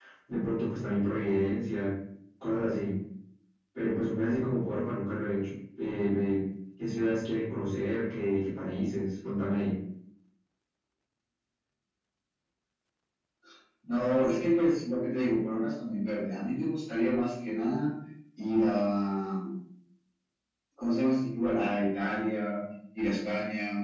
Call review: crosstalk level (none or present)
none